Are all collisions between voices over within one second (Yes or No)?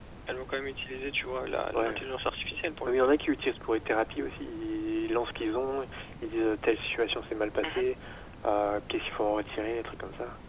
Yes